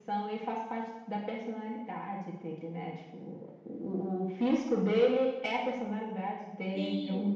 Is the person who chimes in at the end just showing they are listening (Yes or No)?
No